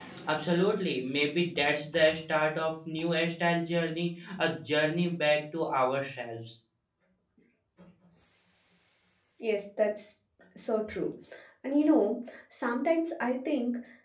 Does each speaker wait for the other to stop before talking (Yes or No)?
Yes